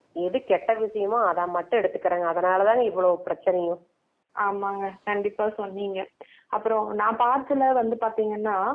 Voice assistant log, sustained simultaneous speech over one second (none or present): none